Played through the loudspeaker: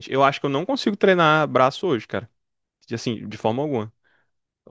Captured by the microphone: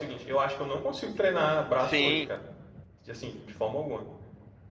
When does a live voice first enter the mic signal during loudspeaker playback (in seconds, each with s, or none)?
1.8 s